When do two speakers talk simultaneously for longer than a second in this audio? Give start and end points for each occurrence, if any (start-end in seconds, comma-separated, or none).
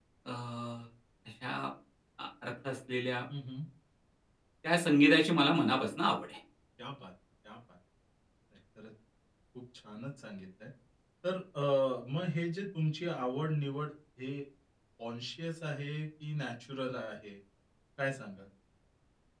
none